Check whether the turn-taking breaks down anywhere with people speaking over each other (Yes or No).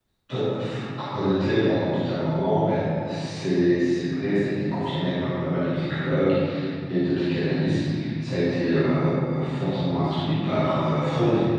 No